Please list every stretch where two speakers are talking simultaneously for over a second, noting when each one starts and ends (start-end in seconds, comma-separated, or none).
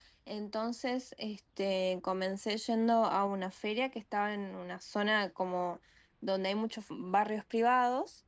none